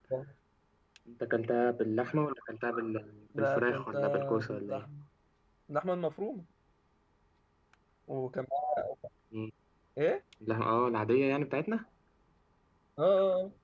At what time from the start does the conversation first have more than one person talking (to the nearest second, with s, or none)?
3 s